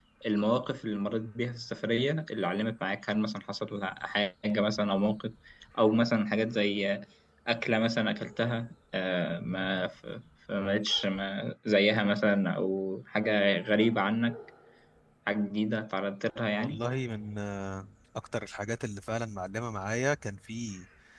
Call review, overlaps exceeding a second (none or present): none